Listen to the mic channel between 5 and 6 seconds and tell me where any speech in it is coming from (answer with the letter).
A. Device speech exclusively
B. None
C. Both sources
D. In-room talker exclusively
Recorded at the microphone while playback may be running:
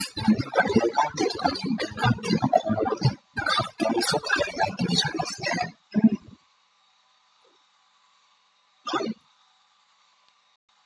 A